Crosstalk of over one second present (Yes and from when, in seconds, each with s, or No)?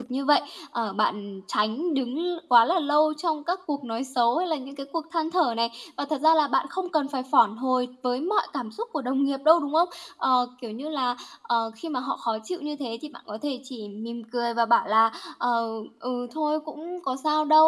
No